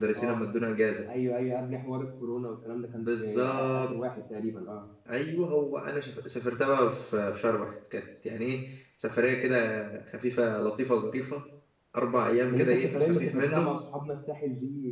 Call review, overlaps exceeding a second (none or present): present